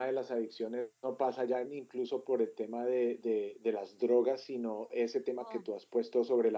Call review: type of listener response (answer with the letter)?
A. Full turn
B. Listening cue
B